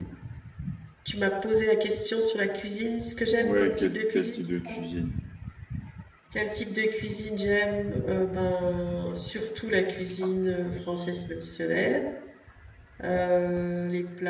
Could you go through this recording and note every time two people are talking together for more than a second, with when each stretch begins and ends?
3.4-4.8

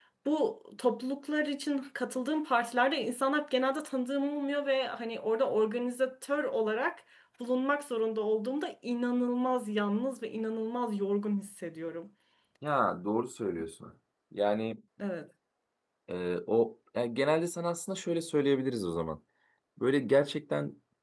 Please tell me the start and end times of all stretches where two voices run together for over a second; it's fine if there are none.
none

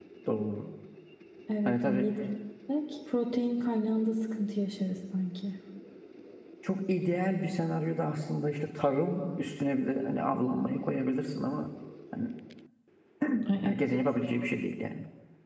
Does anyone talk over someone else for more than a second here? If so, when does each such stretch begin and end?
none

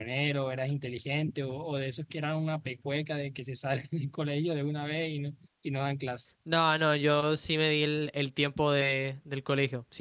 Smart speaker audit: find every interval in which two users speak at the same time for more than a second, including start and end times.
none

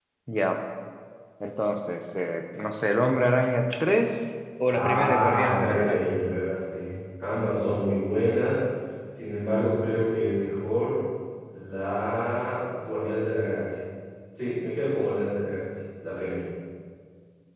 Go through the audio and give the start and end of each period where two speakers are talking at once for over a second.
4.7-6.0

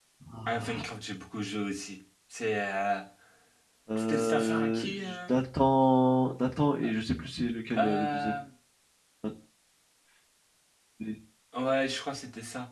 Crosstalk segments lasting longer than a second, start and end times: 4.0-5.2

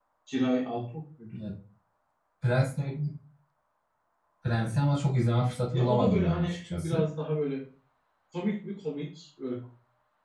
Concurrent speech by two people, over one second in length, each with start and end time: 5.7-7.0

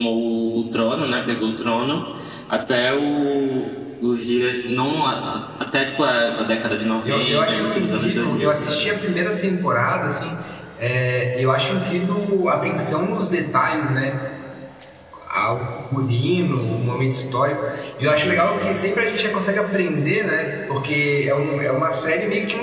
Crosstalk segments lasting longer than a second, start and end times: 7.0-8.6

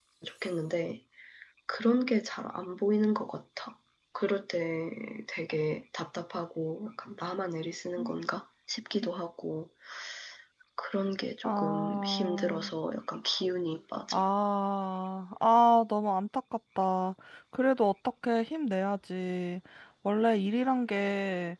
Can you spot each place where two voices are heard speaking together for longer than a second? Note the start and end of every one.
11.4-12.7

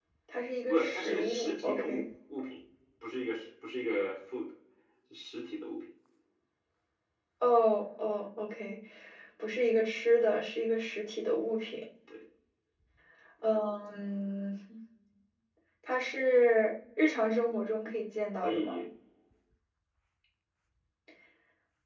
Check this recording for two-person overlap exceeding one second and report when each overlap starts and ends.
0.7-2.0

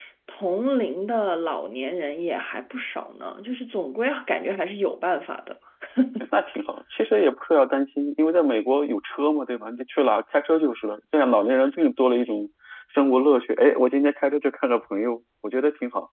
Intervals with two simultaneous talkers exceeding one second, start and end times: none

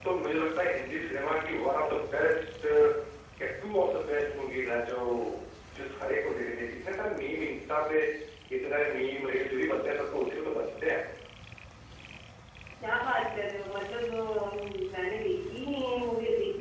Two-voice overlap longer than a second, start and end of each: none

